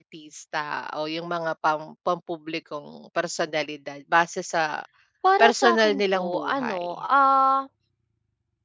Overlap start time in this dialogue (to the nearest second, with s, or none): 5 s